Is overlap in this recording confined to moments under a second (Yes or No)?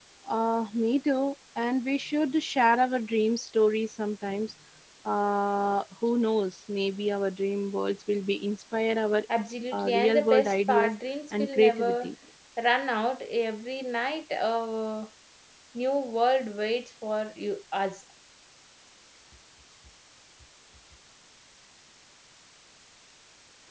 No